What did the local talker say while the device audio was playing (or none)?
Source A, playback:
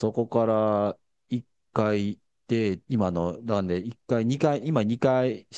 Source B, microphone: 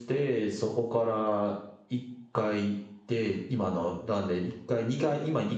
none